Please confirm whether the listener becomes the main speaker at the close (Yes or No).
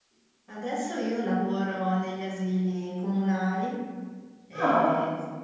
No